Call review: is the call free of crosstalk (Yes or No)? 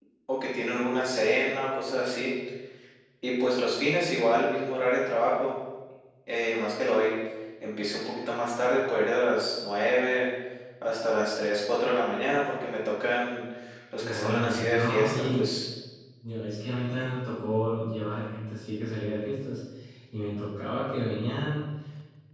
No